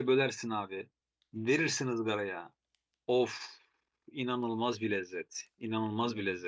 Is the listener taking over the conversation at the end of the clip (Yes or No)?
No